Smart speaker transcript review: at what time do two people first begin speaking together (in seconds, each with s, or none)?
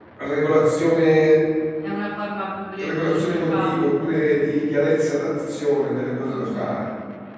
2.8 s